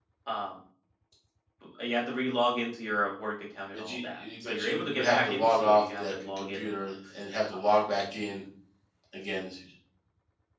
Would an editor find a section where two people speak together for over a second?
Yes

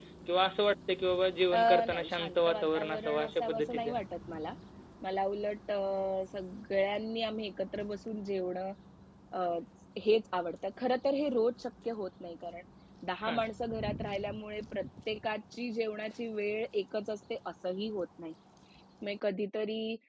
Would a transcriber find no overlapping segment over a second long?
No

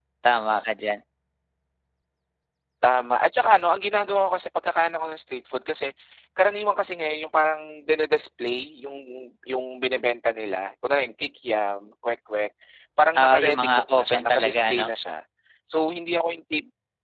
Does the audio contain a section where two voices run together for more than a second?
Yes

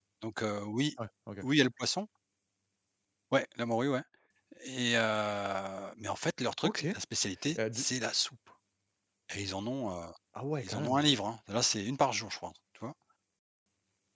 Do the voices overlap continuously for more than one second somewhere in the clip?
No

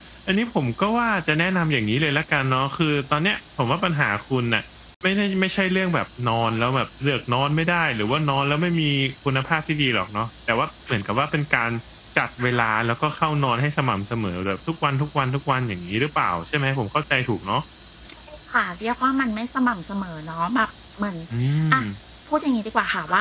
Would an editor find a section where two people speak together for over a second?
No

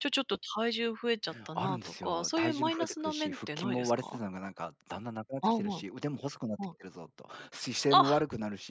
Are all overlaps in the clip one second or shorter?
No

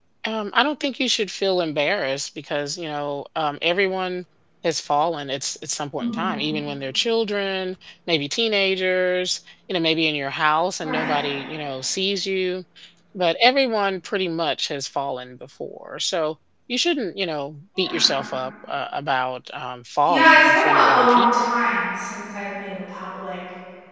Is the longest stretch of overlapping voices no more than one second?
No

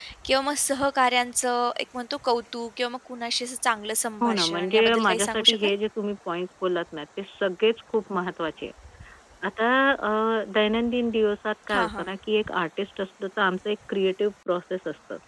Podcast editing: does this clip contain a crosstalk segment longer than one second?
Yes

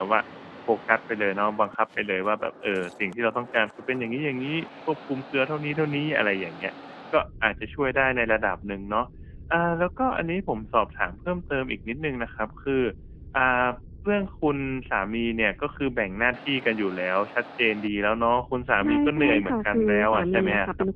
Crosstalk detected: Yes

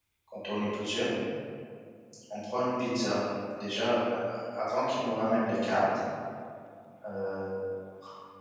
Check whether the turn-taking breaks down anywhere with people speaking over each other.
No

